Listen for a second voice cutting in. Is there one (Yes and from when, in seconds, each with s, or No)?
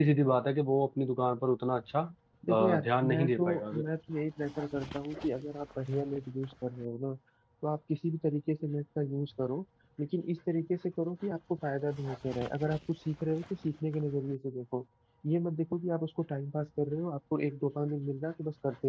Yes, from 2.5 s